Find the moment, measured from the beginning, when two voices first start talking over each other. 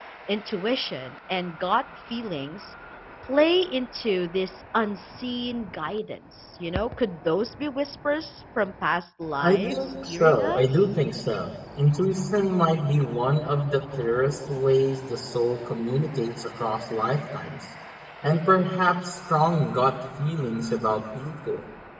9.4 s

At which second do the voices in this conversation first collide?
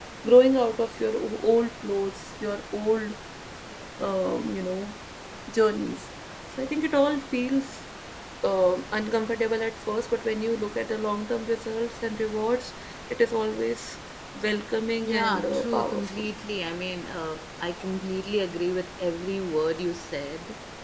15.1 s

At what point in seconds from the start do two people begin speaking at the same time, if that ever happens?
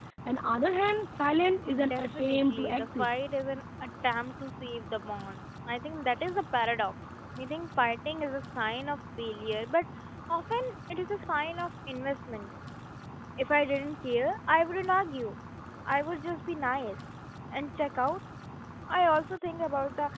1.7 s

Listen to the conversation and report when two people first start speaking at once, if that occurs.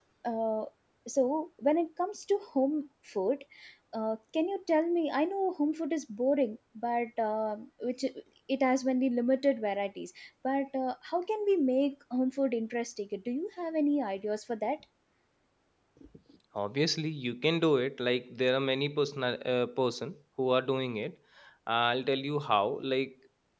none

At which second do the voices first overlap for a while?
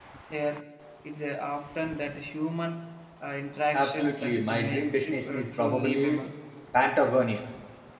3.7 s

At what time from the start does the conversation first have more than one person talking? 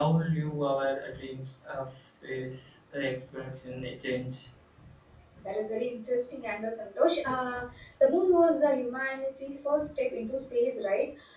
none

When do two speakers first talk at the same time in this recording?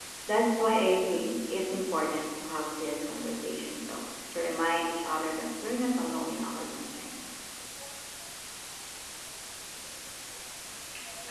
none

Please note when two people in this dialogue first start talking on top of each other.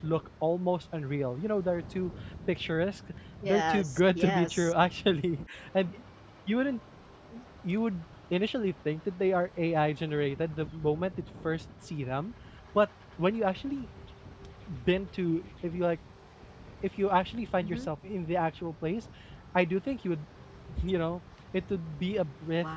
3.4 s

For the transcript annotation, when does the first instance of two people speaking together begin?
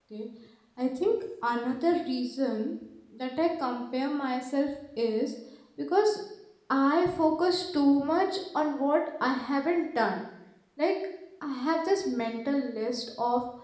none

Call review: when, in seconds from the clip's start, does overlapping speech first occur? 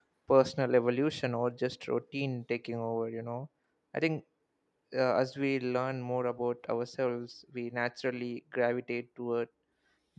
none

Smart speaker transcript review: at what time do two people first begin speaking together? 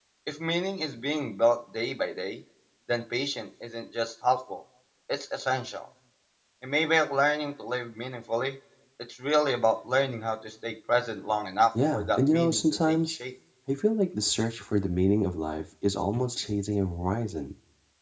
11.8 s

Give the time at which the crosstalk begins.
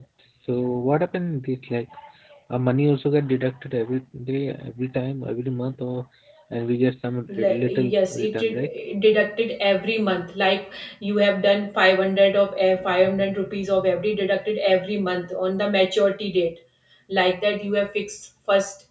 7.3 s

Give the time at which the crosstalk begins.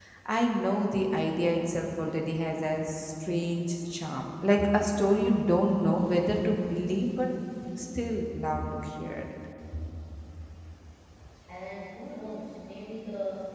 none

